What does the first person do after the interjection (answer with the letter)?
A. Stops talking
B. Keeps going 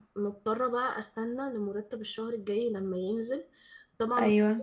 B